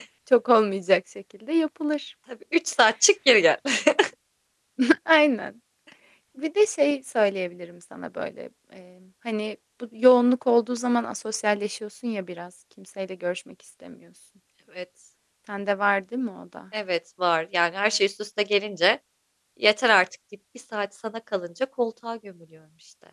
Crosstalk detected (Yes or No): No